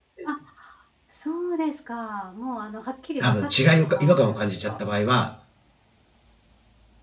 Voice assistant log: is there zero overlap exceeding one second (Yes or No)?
No